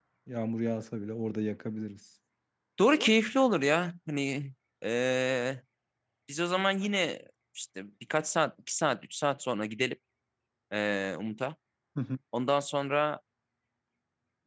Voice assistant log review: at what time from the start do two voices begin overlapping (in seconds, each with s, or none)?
none